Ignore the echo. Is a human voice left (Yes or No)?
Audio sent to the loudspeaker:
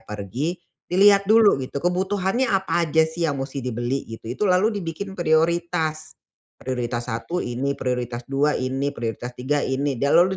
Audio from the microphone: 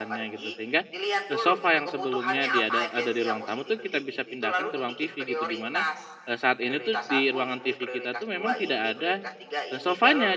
Yes